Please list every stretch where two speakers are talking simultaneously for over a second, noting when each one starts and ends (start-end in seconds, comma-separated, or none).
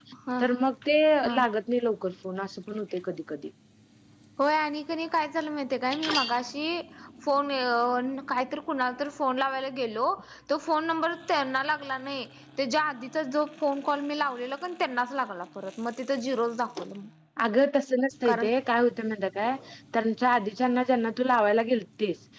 none